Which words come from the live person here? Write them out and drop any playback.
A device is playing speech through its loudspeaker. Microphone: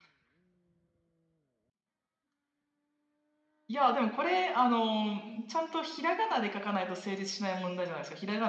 none

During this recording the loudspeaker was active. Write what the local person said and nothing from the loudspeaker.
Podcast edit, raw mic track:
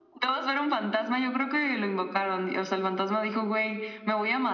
none

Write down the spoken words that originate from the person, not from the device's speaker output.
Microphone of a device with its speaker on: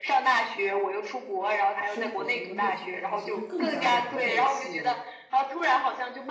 生活跟工作分开，所以就更加难的去

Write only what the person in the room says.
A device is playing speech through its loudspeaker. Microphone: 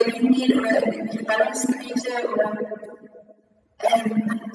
none

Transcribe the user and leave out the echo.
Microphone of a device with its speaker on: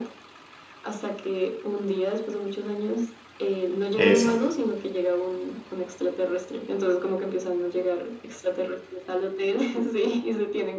Eso.

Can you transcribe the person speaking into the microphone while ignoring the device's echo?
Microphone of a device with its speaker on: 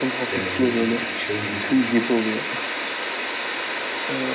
Yani ne bileyim şey gibi.

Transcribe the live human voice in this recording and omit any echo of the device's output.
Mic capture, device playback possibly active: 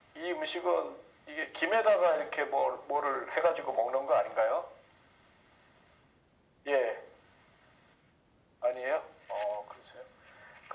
none

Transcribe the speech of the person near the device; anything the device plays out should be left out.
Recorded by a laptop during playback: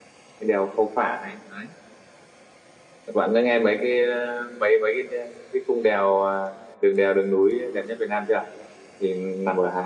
none

